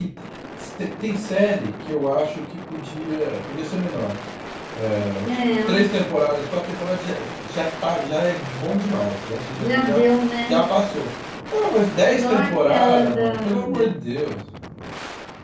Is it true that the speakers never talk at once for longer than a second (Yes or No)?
No